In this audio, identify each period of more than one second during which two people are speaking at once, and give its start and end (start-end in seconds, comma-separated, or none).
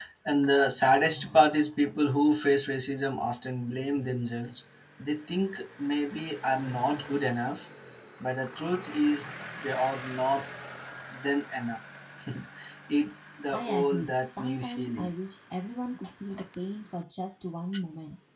13.5-15.1